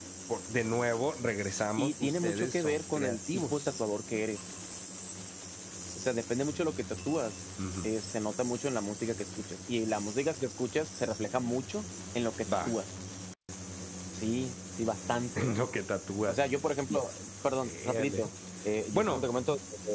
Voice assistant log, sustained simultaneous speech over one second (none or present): present